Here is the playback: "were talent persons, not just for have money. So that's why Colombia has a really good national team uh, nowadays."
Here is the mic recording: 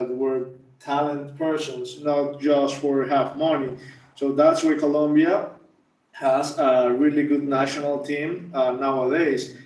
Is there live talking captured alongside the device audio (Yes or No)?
No